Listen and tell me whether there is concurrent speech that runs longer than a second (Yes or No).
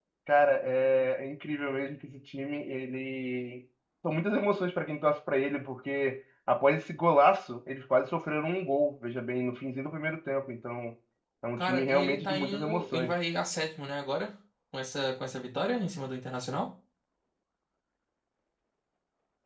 Yes